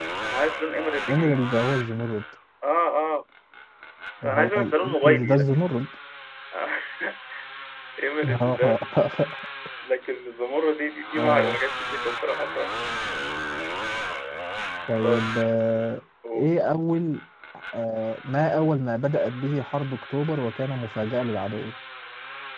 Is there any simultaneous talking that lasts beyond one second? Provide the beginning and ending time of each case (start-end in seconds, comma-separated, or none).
4.2-5.4